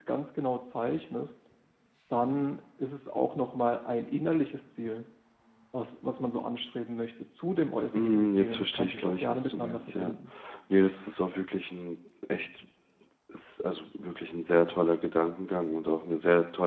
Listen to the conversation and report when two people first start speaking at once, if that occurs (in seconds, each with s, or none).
7.9 s